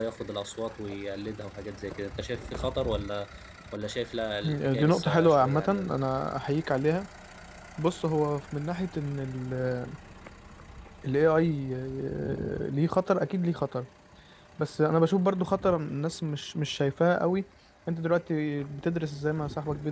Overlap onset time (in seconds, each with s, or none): 4.4 s